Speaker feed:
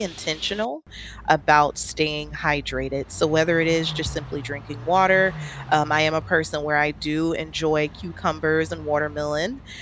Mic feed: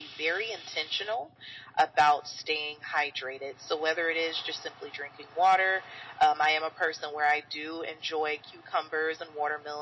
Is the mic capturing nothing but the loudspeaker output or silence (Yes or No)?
Yes